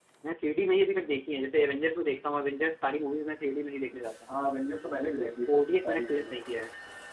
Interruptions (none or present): present